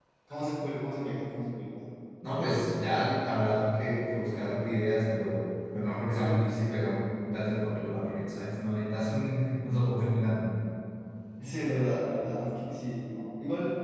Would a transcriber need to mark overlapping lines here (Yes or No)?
No